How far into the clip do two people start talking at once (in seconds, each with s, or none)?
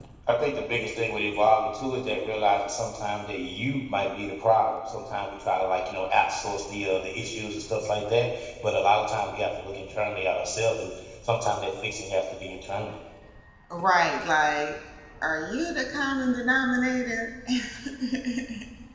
none